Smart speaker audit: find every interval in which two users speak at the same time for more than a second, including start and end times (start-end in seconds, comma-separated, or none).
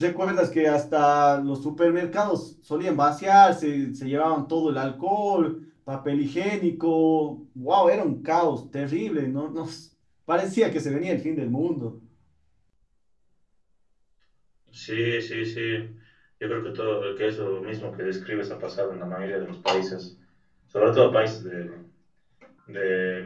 none